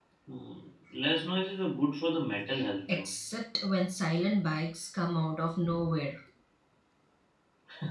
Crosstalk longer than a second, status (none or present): none